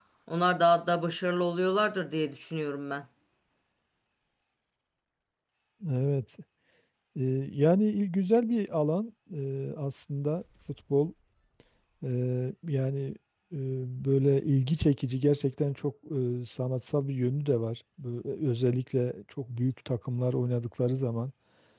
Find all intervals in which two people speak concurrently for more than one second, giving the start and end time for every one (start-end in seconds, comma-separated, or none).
none